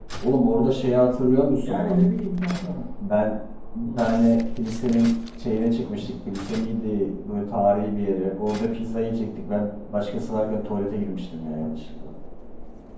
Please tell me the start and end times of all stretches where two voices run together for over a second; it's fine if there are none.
none

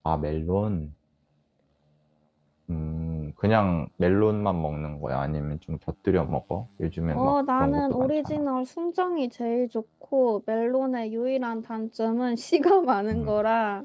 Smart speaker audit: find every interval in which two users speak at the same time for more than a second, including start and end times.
7.1-8.4

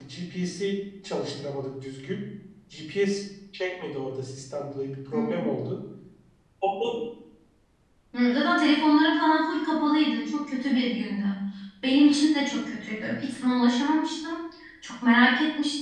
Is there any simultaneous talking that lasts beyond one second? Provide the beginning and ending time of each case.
none

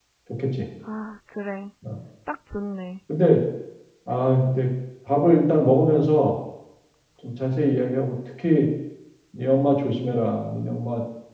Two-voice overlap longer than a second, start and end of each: none

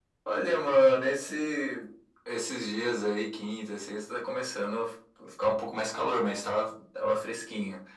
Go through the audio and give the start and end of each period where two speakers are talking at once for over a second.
none

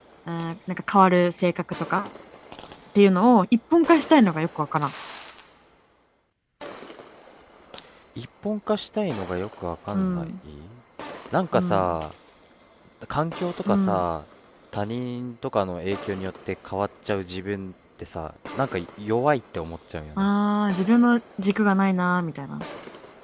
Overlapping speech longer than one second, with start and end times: none

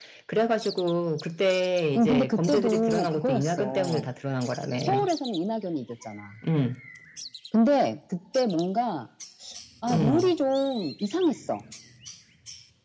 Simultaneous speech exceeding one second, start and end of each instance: 2.0-4.1

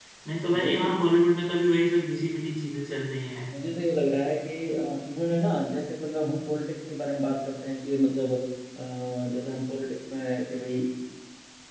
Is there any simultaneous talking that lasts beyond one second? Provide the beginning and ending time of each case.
none

